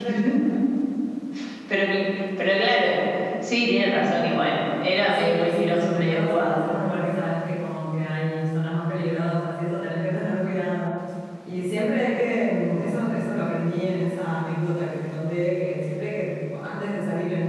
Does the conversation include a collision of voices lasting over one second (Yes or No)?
Yes